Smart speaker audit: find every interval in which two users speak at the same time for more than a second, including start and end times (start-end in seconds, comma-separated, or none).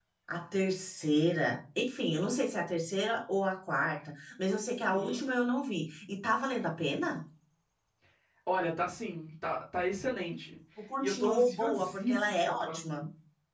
11.0-13.0